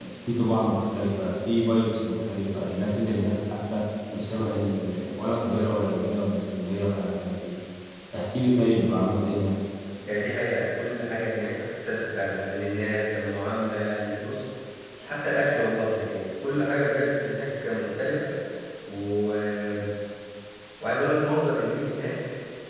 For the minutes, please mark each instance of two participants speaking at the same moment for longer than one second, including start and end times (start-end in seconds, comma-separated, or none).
none